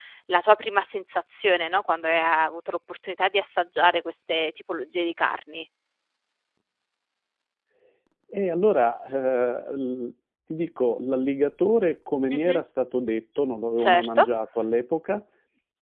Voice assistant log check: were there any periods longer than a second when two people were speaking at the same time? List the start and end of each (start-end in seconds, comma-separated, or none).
none